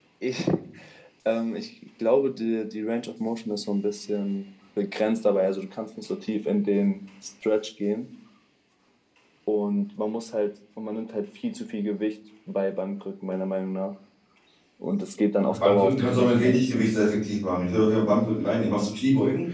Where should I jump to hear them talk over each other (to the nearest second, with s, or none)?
15 s